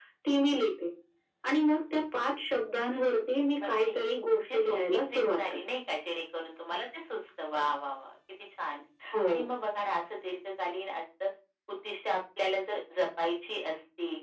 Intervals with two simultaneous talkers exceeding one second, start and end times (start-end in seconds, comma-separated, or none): 3.6-5.6